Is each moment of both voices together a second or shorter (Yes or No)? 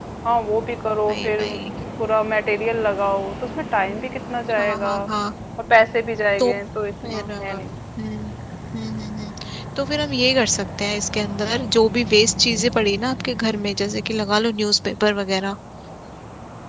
Yes